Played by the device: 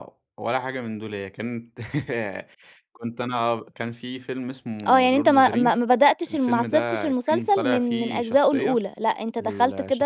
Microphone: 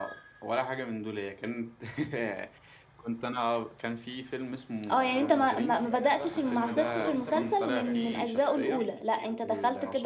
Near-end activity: present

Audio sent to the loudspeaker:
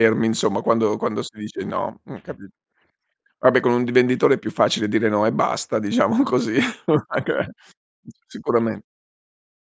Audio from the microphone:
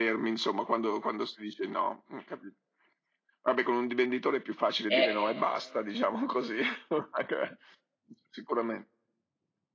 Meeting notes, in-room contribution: present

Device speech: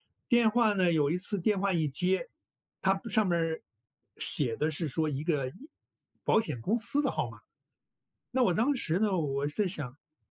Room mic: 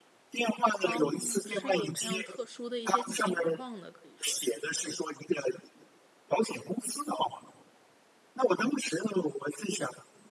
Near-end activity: present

